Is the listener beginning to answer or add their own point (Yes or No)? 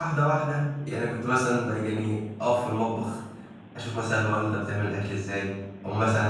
No